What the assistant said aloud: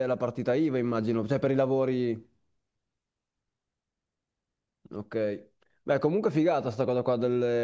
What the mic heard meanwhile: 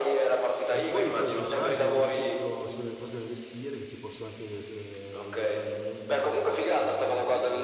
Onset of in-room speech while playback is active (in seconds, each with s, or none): 0.7 s